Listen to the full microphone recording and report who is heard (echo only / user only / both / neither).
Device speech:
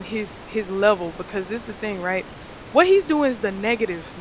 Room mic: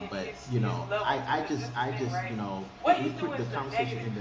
both